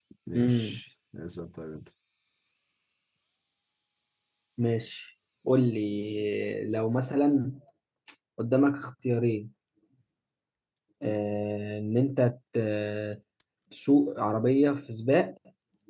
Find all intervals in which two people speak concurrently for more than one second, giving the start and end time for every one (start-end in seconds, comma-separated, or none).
none